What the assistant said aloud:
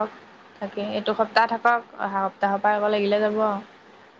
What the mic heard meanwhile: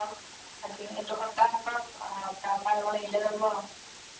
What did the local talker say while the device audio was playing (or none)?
none